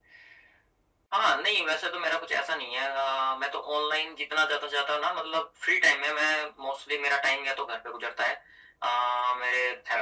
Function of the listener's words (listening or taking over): listening